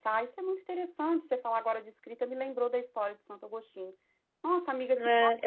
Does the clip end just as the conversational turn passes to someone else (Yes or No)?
Yes